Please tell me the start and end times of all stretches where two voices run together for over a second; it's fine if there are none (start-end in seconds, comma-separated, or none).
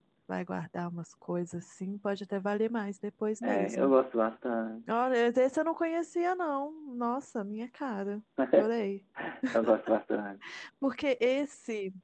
none